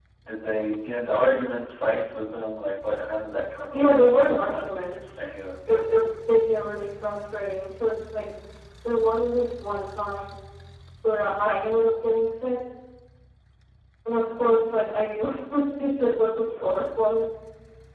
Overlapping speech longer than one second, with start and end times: 3.7-5.1

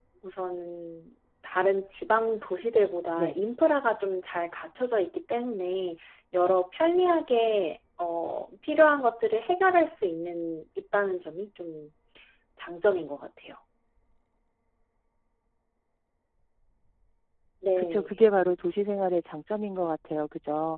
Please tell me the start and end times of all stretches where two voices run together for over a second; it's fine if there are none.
none

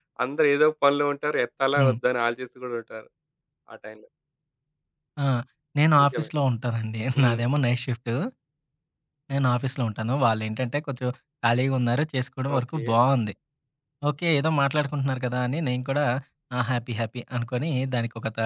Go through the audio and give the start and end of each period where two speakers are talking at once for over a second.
none

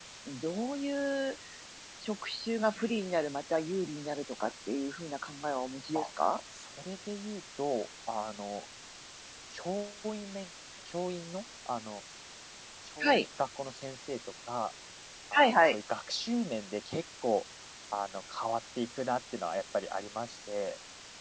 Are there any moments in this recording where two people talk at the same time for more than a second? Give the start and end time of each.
none

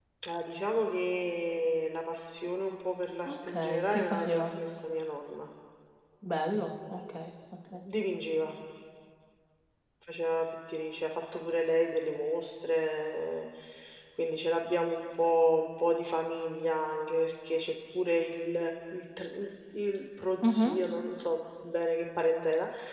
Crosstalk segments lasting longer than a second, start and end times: 3.3-4.5

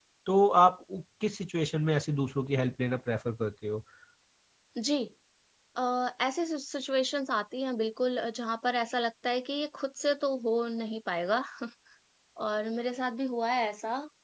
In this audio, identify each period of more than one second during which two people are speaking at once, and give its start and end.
none

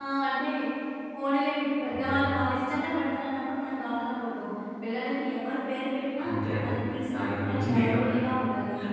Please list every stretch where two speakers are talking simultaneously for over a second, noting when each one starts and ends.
7.1-8.4

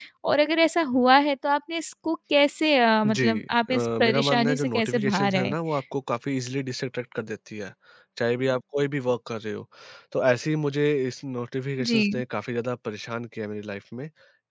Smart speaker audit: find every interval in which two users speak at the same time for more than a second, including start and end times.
3.7-5.5

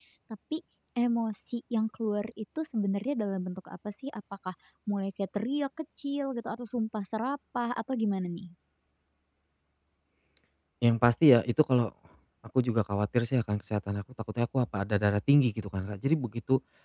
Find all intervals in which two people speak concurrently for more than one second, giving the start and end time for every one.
none

